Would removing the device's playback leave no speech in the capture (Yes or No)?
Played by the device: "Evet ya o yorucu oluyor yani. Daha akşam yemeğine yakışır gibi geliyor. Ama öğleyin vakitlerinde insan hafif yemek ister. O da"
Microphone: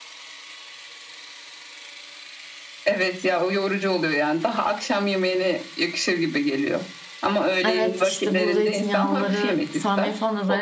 No